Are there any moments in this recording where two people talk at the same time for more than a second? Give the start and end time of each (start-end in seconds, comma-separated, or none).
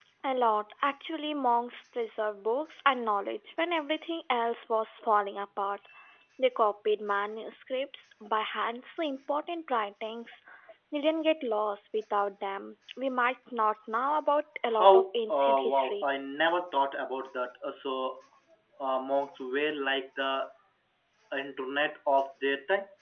14.8-16.0